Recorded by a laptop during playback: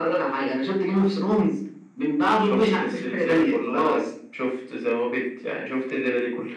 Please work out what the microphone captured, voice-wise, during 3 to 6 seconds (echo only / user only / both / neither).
echo only